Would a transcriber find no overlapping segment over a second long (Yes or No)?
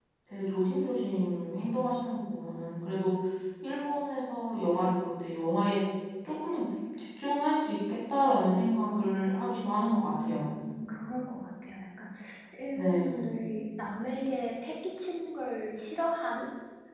Yes